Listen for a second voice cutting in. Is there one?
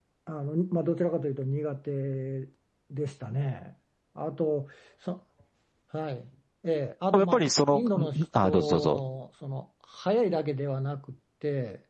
Yes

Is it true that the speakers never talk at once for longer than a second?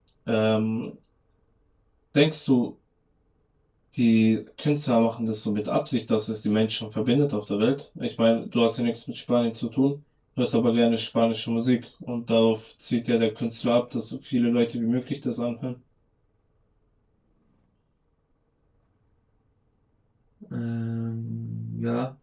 Yes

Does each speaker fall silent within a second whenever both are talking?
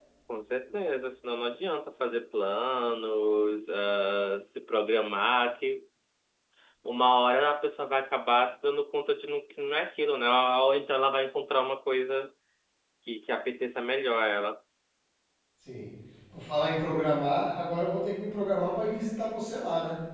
Yes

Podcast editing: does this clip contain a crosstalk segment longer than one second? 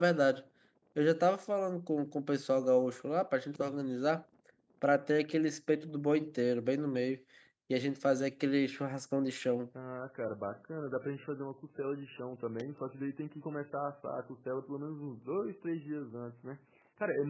No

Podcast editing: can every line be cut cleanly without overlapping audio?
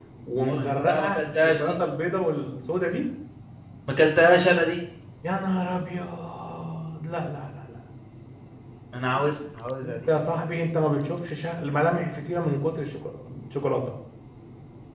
No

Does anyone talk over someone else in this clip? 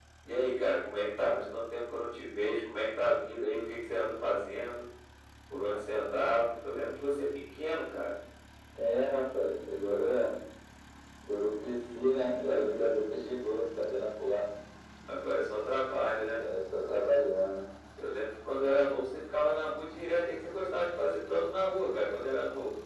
No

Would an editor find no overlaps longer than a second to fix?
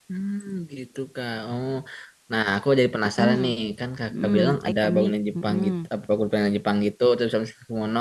No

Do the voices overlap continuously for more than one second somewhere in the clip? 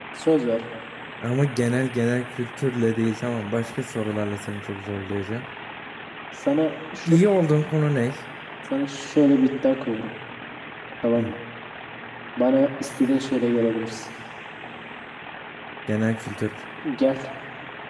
No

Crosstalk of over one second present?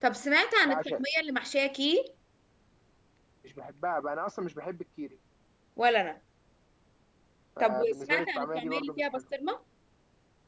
Yes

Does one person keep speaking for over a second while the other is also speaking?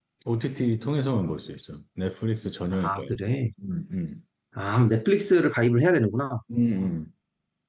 No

